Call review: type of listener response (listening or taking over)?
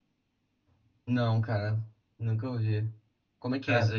taking over